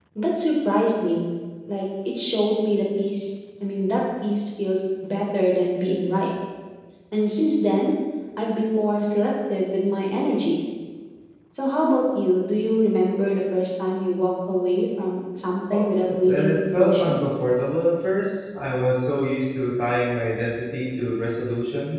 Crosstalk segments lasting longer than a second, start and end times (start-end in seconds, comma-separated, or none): 15.7-17.2